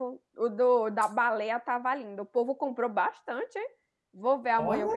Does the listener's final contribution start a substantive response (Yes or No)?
No